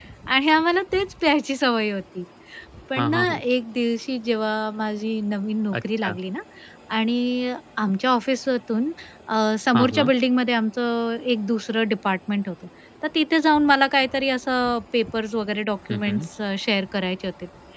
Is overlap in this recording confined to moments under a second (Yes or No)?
Yes